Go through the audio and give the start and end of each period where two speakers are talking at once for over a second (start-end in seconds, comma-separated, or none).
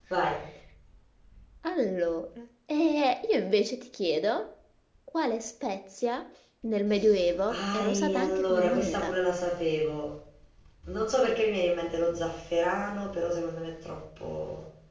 7.5-9.2